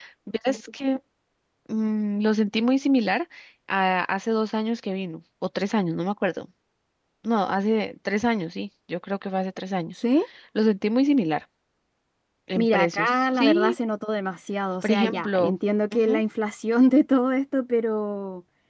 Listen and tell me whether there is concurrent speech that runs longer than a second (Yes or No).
Yes